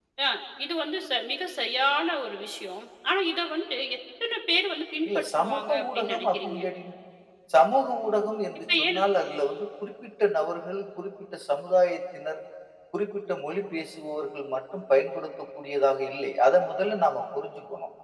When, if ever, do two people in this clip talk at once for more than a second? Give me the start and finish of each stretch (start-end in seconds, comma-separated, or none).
5.1-6.6